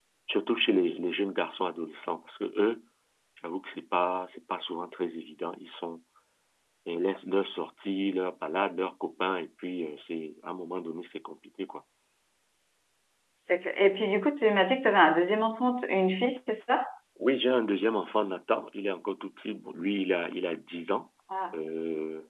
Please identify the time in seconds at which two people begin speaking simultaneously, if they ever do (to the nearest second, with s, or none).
none